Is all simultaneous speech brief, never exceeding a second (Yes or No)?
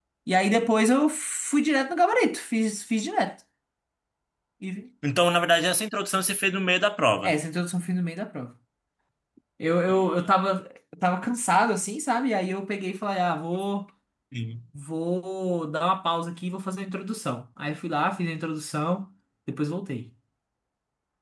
Yes